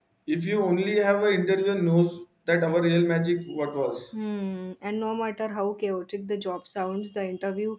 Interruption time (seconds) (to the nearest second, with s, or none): none